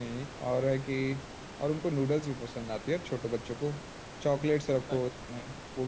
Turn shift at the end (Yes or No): No